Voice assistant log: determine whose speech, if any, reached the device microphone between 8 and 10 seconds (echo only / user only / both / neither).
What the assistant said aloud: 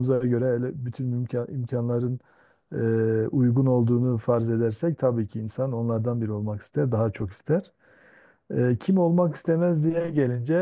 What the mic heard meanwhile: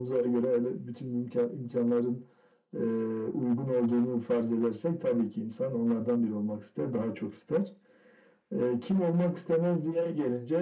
echo only